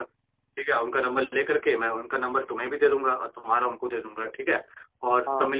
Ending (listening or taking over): listening